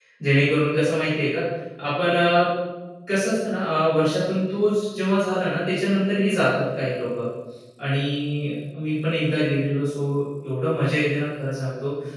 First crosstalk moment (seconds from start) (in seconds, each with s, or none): none